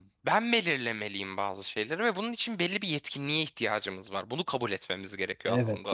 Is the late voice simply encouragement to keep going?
No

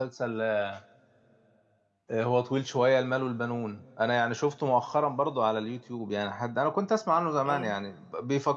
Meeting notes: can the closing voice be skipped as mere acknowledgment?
Yes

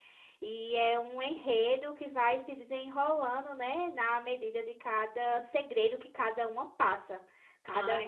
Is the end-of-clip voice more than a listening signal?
No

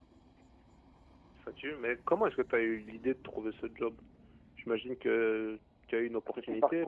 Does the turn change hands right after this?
Yes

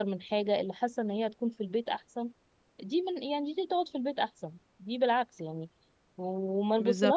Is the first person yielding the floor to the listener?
No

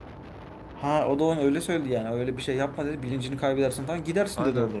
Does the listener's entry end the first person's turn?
Yes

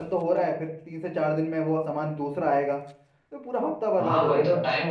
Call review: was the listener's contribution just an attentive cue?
No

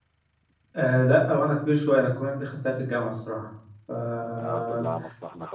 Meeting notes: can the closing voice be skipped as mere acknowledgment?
No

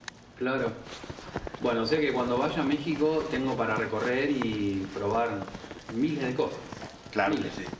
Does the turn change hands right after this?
Yes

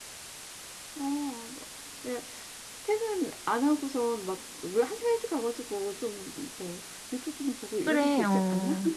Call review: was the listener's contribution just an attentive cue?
No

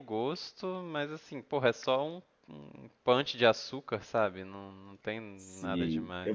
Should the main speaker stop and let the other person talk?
Yes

